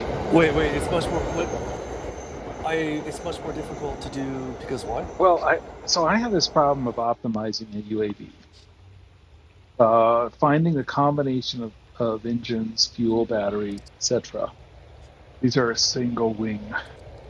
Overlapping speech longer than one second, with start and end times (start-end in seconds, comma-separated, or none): none